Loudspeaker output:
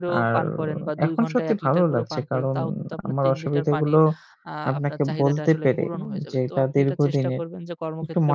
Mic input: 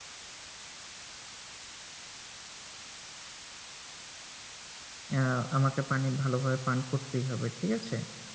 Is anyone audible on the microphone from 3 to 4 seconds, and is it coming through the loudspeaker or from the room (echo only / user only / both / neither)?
neither